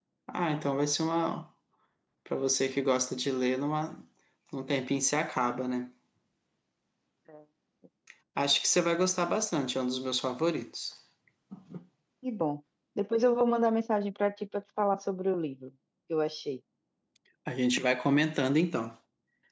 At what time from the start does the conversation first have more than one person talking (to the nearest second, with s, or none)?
none